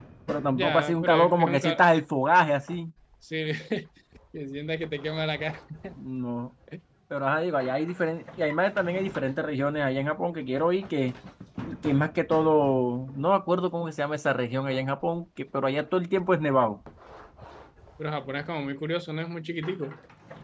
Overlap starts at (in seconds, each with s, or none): 0.5 s